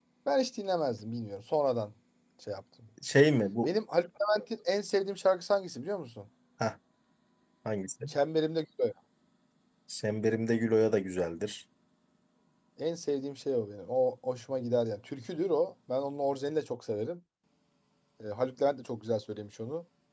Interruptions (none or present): none